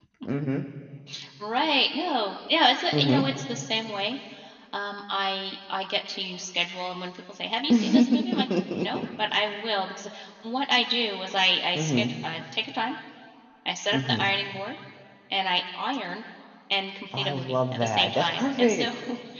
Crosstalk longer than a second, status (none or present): present